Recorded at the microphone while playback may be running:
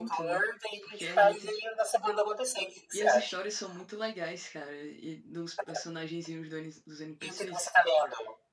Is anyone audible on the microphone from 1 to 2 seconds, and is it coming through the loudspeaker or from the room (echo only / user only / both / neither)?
both